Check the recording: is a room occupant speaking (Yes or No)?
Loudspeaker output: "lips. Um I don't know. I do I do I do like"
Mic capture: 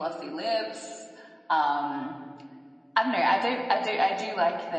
No